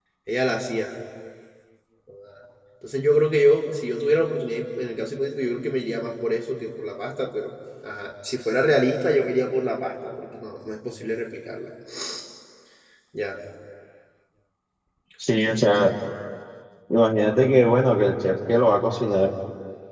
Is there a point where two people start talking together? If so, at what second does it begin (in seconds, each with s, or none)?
none